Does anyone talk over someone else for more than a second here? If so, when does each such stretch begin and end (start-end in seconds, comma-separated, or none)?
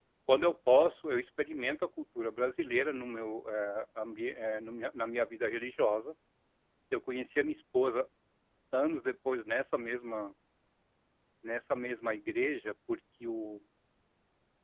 none